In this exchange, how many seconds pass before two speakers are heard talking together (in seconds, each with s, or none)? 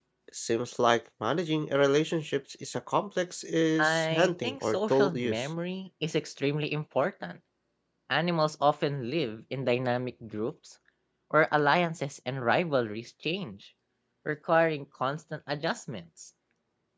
3.8 s